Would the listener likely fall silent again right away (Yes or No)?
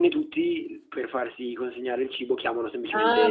No